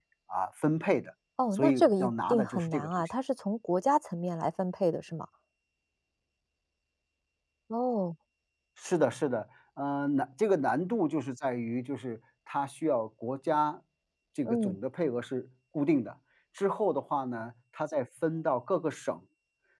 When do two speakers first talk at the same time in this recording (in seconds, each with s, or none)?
1.5 s